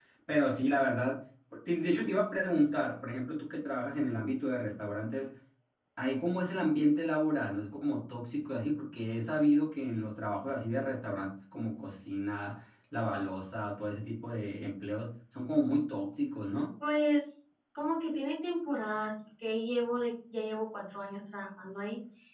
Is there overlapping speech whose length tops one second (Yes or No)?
No